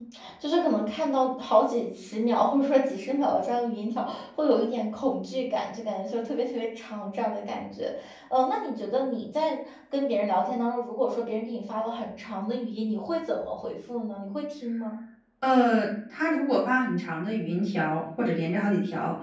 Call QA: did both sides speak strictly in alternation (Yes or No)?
Yes